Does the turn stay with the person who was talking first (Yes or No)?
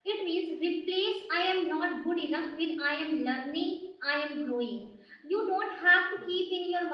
Yes